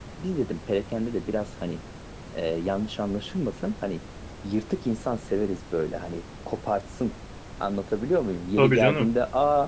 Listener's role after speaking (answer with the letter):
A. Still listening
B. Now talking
A